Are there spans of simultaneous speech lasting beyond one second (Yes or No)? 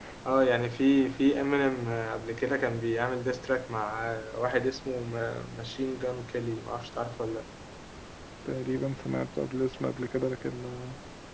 No